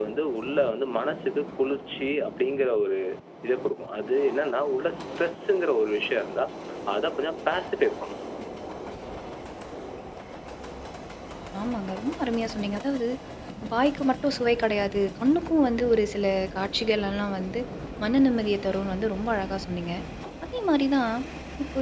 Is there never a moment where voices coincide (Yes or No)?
Yes